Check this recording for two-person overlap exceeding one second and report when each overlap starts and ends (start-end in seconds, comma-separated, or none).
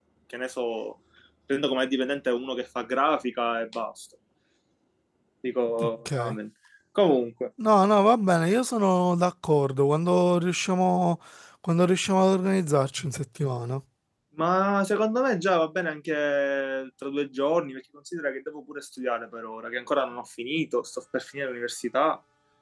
none